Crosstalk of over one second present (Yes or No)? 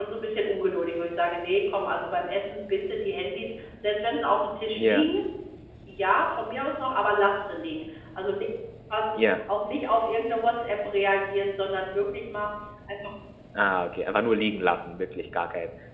No